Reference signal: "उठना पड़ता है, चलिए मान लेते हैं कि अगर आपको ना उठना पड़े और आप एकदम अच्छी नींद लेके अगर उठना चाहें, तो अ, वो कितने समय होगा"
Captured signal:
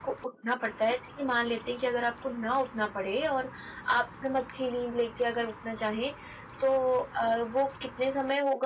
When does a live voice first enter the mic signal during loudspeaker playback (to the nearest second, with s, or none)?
none